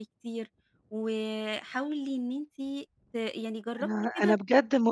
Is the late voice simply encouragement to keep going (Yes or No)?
No